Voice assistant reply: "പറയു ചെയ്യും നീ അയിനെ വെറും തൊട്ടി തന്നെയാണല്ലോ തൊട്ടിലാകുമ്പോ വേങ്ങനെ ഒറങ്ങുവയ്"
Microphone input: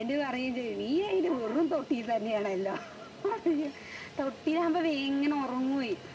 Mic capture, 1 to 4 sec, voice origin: echo only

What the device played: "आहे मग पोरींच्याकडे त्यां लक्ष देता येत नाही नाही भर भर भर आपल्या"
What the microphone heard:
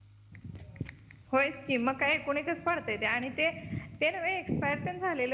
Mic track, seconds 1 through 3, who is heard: user only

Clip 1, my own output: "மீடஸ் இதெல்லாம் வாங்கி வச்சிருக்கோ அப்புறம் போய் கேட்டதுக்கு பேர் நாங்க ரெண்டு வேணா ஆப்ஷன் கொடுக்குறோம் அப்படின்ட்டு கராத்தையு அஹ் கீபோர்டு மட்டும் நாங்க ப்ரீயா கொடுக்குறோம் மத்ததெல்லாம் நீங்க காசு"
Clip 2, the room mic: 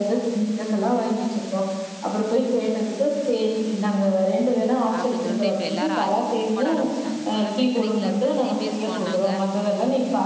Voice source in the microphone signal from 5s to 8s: both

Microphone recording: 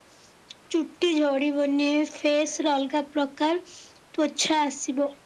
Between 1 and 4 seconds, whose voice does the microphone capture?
echo only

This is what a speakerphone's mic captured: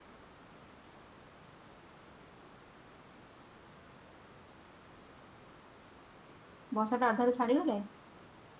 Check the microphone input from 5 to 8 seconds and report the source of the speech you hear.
user only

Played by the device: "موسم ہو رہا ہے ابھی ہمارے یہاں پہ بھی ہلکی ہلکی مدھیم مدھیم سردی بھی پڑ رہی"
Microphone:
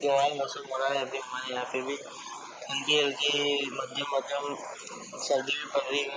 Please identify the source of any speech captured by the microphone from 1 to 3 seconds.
echo only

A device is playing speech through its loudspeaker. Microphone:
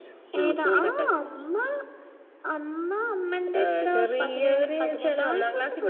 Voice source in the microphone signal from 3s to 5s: echo only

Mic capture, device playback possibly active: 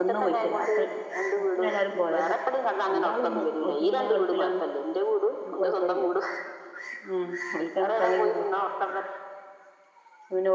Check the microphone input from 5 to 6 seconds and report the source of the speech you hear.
both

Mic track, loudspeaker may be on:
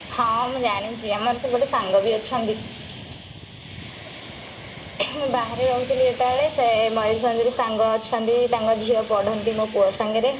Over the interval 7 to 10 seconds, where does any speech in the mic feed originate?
echo only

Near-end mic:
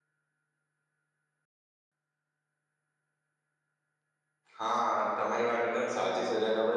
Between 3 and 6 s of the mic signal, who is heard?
user only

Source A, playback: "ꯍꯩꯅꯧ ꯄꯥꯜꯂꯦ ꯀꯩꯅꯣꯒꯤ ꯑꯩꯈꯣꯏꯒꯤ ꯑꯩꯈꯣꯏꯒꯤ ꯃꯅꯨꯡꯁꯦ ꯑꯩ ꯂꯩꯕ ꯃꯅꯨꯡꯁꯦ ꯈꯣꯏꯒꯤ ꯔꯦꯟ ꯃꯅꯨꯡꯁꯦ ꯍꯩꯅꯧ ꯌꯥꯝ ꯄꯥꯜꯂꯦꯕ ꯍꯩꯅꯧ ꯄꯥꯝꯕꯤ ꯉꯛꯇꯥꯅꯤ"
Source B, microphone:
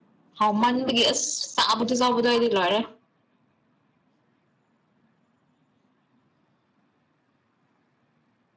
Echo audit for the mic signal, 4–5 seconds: neither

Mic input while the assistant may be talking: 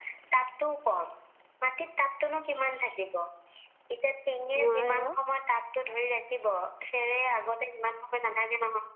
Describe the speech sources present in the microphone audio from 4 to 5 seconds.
both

